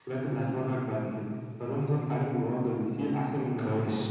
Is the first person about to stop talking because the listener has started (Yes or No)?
No